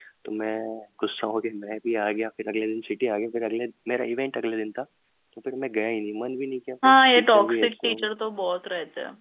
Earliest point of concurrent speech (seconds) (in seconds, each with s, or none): 6.8 s